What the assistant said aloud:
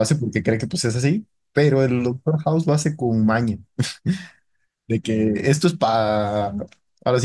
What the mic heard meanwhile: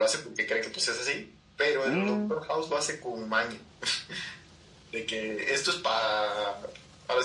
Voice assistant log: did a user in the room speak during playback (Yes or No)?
Yes